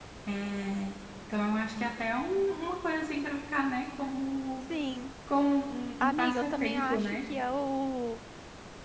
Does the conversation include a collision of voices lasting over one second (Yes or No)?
Yes